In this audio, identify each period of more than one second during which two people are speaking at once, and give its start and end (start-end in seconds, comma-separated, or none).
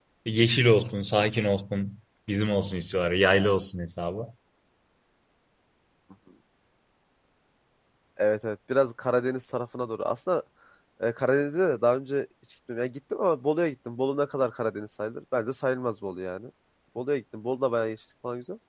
none